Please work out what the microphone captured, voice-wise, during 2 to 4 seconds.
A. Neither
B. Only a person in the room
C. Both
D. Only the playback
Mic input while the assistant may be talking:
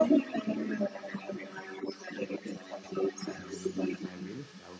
C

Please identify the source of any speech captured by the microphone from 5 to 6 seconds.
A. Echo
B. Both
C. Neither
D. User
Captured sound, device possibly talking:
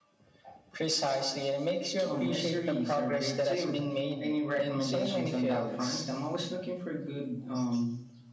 B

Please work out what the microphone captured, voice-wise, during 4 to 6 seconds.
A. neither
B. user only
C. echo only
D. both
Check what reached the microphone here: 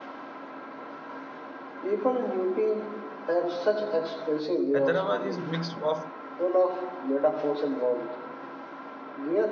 D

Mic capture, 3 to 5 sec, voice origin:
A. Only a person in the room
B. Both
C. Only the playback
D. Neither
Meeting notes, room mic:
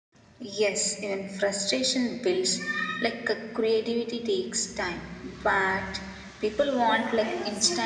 C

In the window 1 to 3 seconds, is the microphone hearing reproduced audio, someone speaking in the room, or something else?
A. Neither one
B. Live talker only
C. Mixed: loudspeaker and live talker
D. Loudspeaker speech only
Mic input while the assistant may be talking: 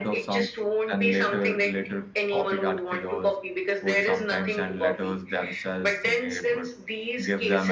C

